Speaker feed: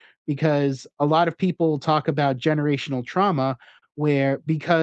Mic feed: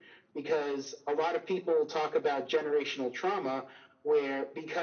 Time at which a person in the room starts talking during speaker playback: none

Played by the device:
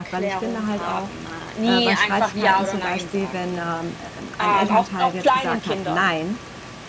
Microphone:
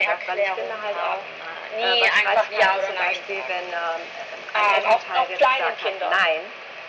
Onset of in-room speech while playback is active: none

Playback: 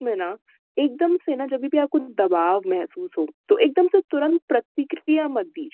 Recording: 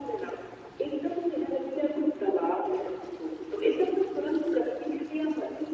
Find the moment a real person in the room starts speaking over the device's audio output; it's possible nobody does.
none

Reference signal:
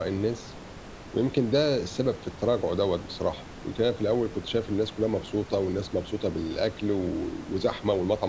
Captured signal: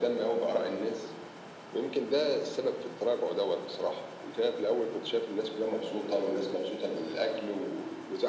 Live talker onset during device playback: none

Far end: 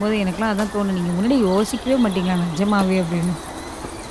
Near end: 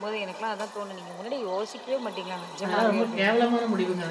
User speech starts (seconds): 3 s

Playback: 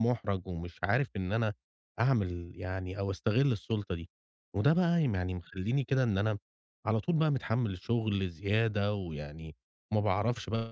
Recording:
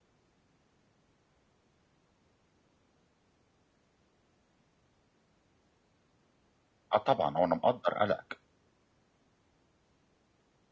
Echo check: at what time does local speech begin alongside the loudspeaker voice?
7 s

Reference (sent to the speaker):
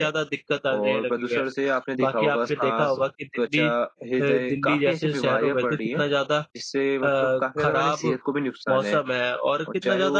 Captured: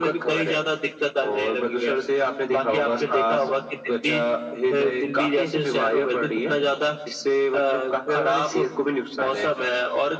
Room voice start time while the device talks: none

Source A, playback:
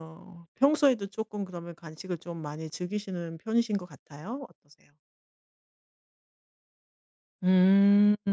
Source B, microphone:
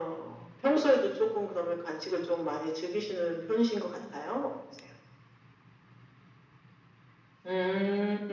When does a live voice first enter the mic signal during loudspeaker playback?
none

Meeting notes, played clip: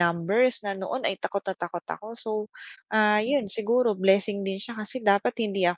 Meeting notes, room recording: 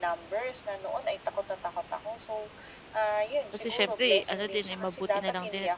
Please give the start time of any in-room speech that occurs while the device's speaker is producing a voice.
4 s

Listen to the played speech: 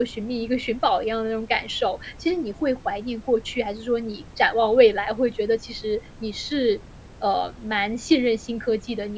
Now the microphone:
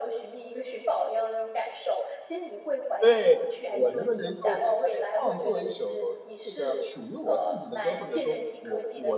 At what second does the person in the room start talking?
3 s

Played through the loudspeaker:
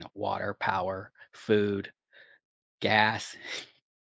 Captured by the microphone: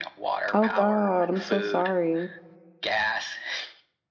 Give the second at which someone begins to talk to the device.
1 s

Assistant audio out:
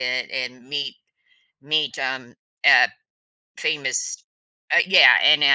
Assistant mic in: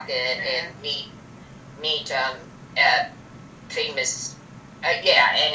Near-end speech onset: 0 s

